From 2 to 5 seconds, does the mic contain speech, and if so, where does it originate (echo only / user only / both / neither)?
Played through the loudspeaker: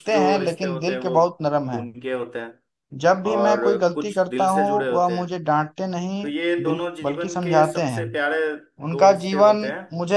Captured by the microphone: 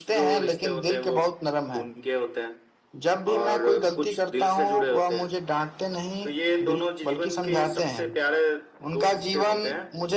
echo only